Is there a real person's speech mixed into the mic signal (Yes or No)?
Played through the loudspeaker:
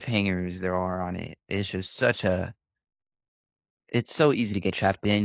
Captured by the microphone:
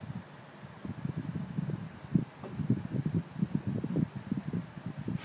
No